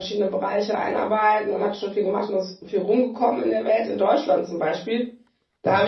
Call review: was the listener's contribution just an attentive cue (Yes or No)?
Yes